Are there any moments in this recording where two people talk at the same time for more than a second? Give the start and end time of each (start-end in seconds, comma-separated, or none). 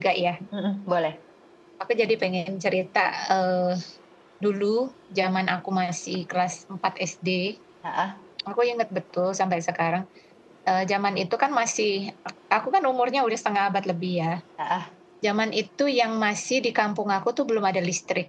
none